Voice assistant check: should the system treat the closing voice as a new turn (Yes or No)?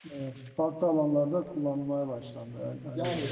Yes